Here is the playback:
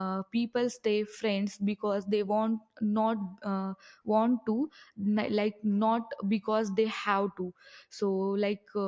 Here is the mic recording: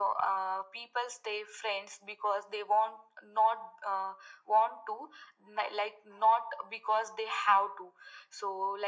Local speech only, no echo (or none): none